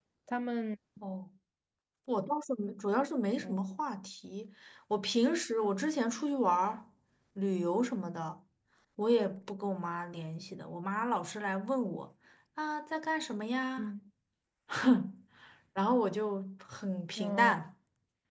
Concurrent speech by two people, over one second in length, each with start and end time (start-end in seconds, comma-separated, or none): none